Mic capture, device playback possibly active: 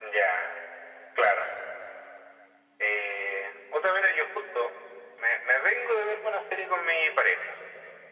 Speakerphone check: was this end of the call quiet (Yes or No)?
Yes